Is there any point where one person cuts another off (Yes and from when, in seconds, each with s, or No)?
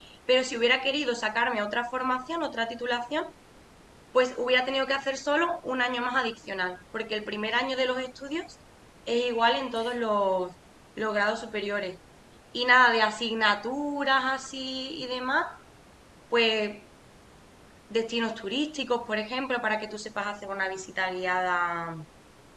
No